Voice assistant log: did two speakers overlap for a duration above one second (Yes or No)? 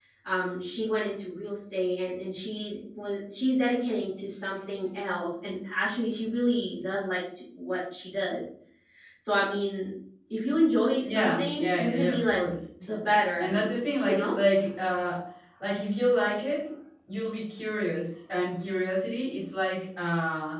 Yes